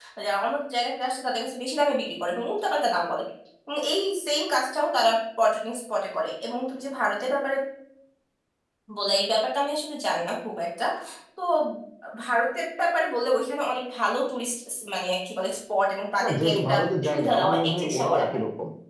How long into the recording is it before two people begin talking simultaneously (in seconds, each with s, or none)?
16.2 s